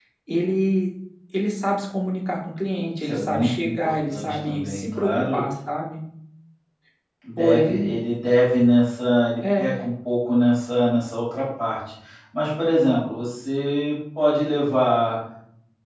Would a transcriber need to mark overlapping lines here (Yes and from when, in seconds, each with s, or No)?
Yes, from 3.0 s